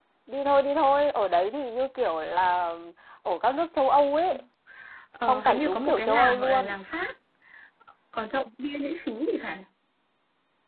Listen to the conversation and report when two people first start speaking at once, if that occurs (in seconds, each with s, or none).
5.3 s